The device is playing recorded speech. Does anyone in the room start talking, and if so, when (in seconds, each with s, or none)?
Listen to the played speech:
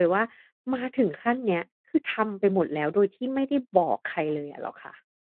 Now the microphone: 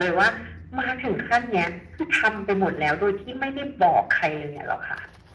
none